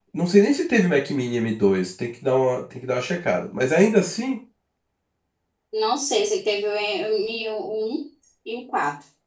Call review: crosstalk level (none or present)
none